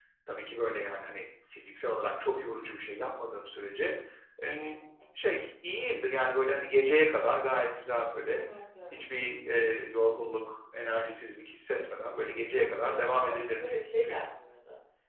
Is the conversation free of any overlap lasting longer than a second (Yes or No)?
No